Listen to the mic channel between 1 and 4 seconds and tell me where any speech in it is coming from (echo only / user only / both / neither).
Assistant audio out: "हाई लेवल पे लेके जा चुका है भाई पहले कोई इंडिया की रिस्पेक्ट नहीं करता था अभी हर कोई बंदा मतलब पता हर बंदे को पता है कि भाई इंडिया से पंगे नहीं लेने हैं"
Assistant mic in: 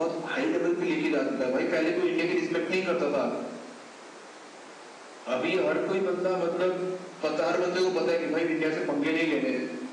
echo only